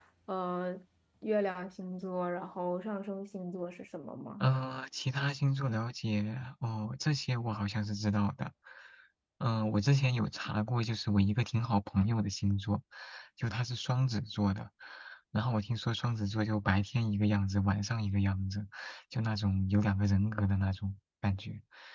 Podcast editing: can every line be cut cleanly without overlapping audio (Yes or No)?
Yes